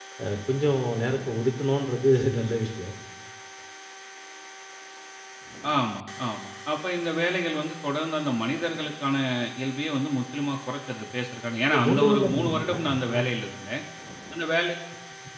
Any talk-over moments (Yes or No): Yes